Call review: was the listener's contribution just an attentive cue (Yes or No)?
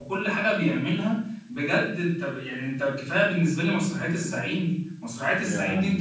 Yes